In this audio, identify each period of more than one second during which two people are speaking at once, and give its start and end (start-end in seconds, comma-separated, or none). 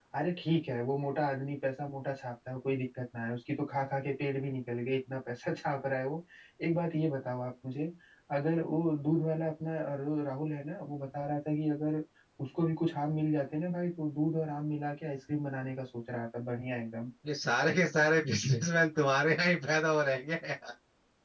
none